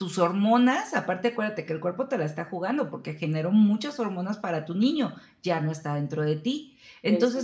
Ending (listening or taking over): listening